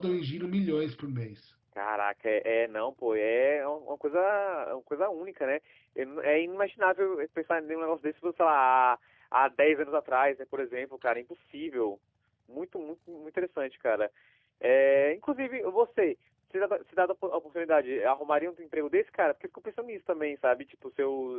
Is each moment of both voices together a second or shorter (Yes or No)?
Yes